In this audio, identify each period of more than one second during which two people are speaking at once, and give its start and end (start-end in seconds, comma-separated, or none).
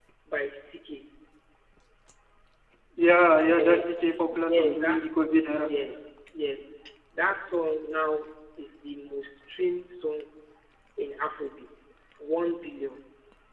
none